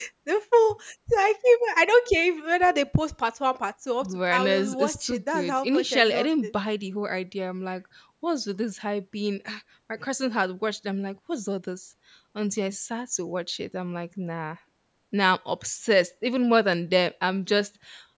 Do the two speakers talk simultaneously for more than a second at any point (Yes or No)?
Yes